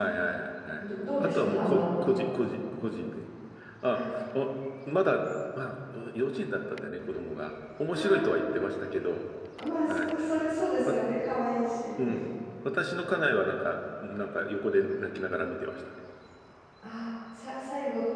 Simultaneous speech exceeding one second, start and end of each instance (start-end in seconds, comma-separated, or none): 0.8-2.2